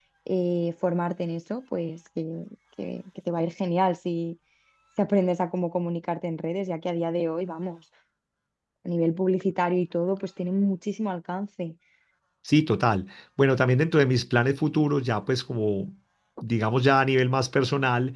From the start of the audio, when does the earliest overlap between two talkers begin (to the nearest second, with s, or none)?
none